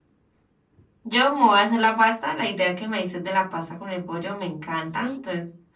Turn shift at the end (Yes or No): No